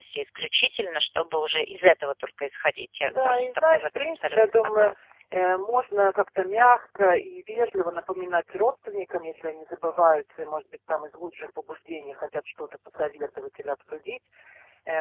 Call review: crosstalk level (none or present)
present